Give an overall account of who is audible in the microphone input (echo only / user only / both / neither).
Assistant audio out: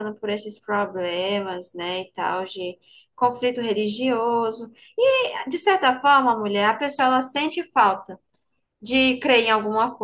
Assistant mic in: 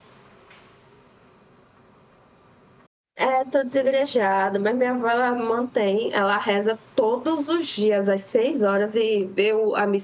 user only